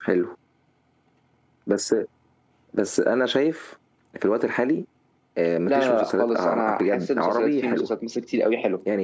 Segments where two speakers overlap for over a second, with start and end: 5.7-7.9

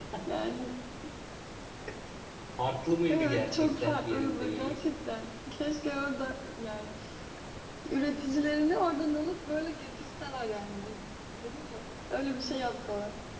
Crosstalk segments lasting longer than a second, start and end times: 3.1-4.8

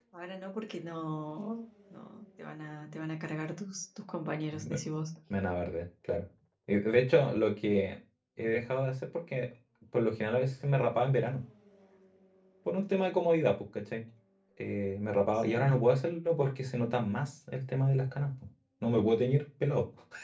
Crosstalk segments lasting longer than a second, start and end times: none

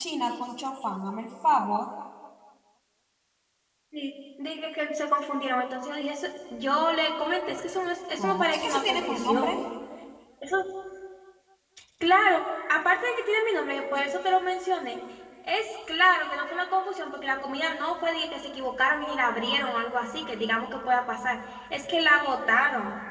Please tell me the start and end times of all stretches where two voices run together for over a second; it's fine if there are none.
8.2-9.6

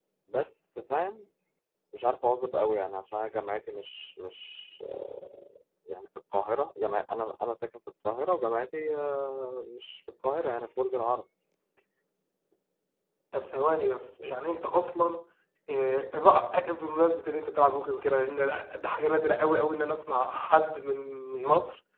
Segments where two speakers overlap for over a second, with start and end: none

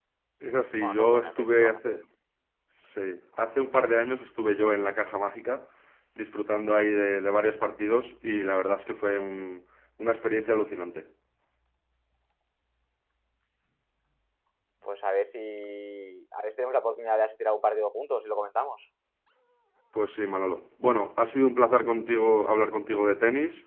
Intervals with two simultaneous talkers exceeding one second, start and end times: 0.8-2.0

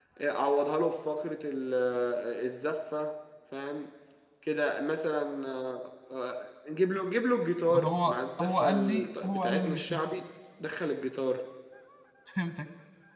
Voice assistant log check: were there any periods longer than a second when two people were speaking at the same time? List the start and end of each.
7.7-10.0

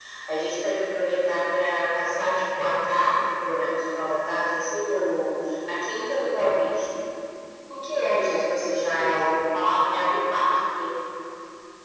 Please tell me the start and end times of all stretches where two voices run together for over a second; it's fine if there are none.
8.1-9.3

